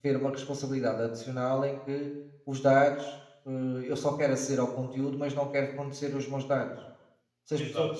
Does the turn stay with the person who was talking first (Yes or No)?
Yes